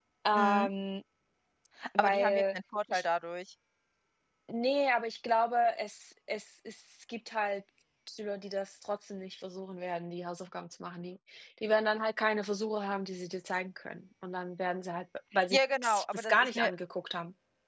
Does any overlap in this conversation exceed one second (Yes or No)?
Yes